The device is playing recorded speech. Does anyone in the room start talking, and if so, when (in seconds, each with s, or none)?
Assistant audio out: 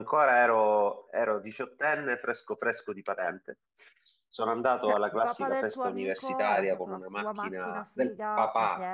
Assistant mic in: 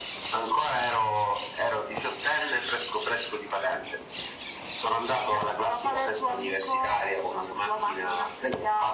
none